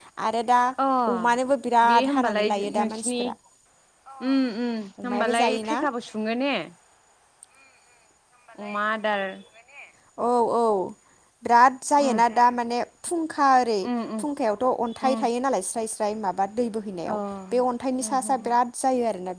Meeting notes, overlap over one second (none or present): present